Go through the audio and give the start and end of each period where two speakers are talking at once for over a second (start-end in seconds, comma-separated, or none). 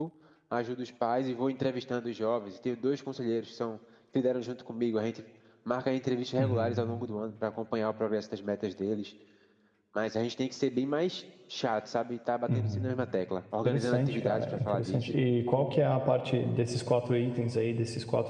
13.6-15.1